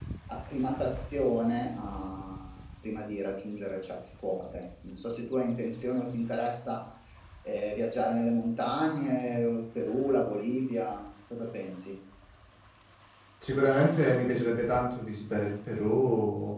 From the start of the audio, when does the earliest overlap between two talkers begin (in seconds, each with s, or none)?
none